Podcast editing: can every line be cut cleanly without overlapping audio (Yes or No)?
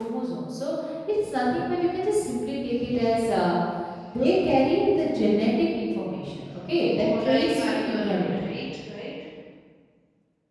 No